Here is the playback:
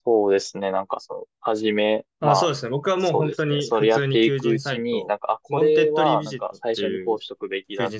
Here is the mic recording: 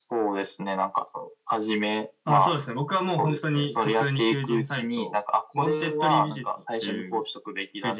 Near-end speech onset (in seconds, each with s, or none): none